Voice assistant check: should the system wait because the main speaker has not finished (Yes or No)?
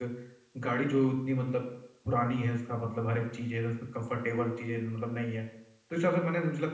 Yes